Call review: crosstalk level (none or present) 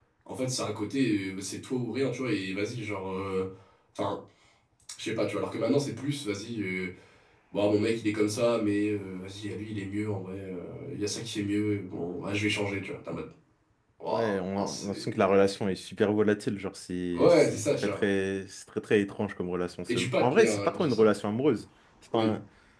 present